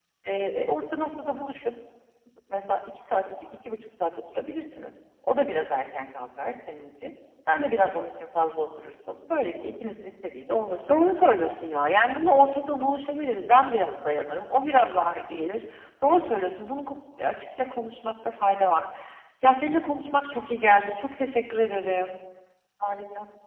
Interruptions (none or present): none